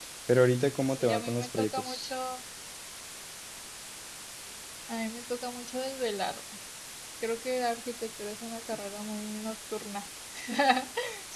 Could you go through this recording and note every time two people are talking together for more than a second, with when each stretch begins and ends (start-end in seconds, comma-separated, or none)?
0.9-2.1